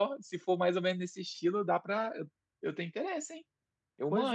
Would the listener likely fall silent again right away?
No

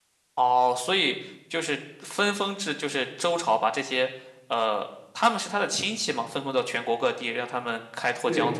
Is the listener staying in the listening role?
No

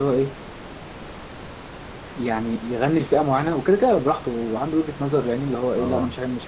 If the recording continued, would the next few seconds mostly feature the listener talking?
No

